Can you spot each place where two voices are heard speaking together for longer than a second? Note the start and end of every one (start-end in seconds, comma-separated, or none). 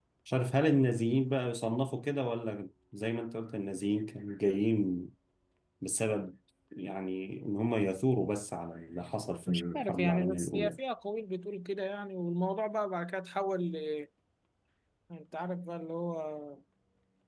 9.5-10.8